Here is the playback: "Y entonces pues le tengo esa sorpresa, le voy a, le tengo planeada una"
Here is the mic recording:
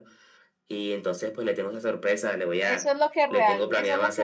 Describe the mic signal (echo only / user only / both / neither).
both